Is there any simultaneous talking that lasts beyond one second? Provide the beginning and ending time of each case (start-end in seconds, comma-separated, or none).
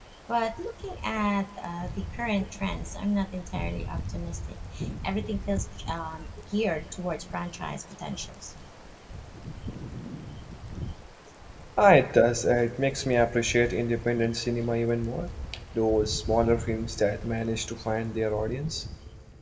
none